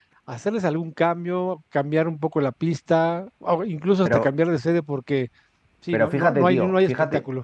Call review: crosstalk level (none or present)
present